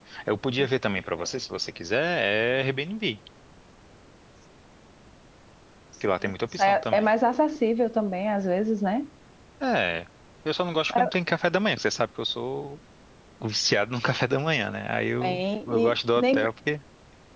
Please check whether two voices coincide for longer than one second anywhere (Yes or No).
Yes